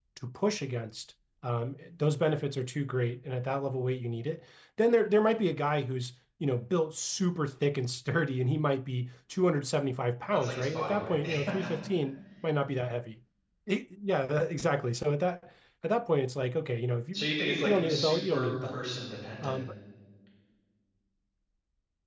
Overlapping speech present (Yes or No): Yes